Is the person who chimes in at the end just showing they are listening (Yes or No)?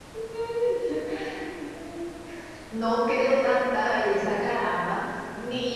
Yes